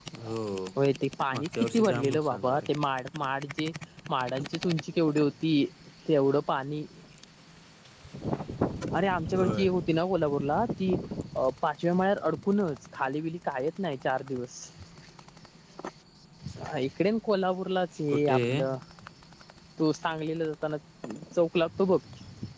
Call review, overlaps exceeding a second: present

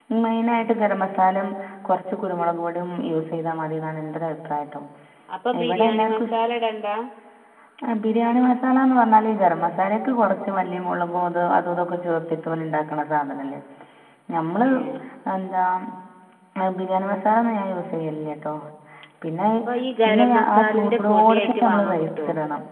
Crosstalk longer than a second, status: present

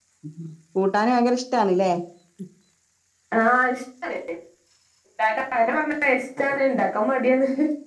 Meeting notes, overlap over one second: none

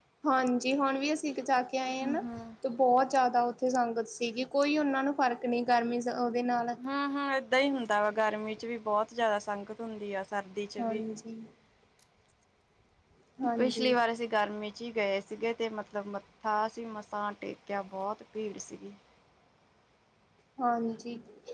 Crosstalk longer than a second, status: none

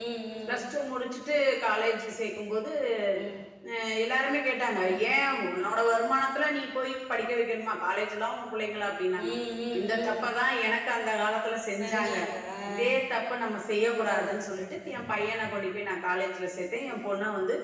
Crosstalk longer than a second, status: none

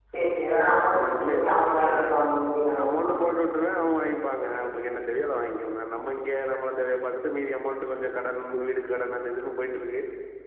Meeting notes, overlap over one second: none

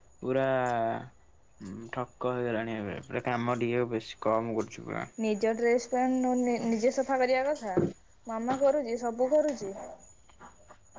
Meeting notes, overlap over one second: none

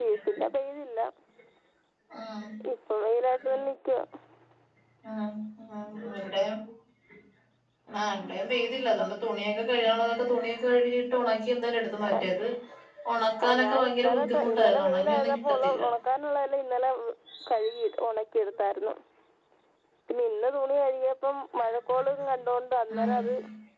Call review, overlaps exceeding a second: present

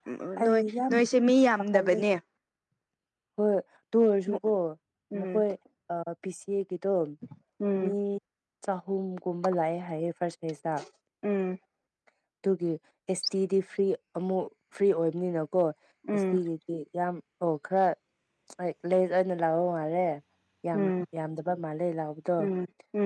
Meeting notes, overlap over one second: none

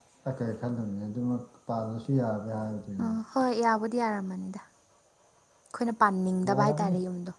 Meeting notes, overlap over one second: none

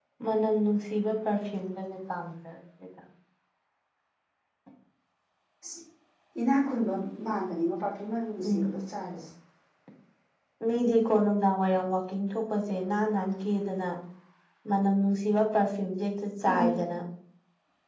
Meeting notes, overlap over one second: none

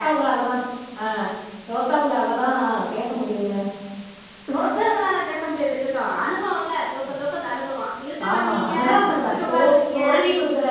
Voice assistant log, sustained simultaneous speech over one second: present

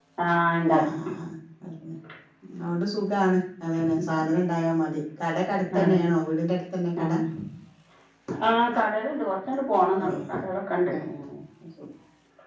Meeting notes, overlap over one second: none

